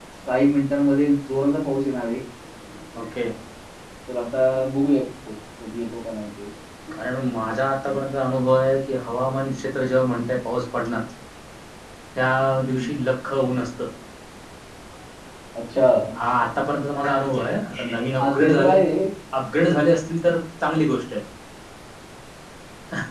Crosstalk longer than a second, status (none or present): none